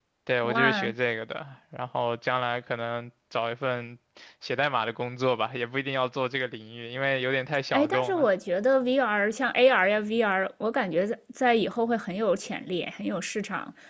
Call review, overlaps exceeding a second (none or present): none